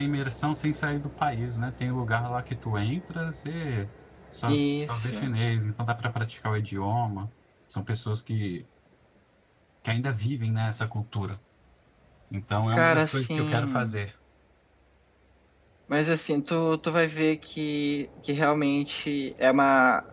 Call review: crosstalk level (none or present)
present